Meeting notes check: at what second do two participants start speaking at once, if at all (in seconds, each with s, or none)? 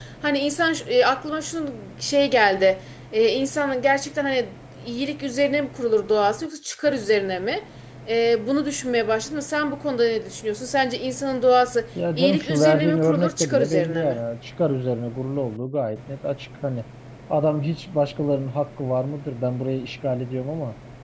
11.9 s